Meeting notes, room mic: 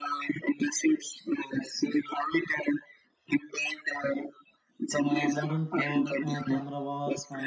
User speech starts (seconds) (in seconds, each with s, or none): 5.0 s